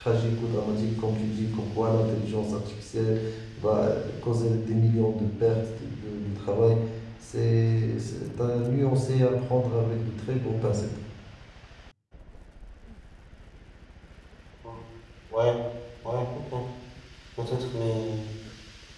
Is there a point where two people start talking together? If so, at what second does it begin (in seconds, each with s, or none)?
none